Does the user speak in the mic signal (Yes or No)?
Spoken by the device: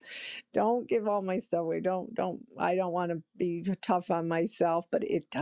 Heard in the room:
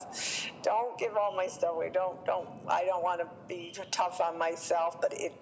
No